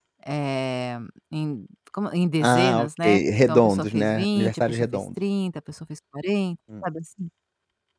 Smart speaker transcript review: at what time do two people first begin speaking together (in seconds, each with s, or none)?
2.4 s